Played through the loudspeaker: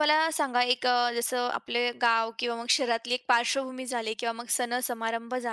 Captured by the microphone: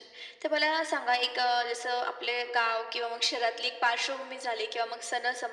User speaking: No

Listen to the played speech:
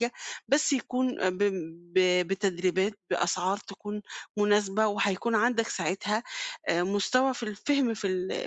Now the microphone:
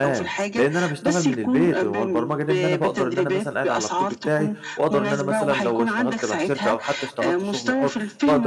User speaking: Yes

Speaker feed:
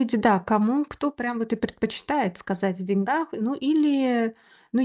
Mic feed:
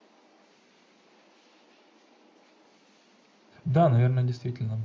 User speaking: Yes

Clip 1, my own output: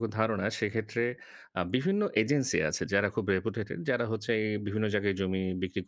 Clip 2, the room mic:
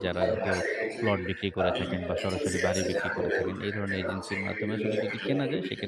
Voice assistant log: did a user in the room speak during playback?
Yes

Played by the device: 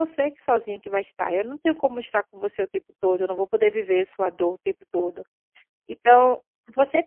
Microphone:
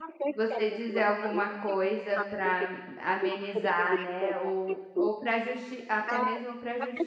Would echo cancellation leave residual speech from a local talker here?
Yes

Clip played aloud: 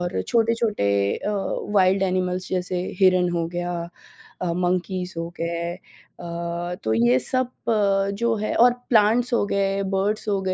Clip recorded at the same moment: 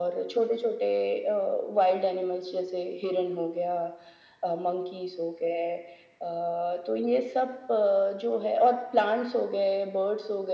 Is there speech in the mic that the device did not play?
No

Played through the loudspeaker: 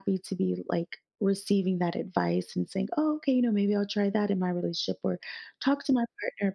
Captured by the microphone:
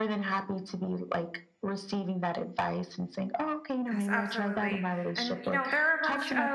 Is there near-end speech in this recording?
Yes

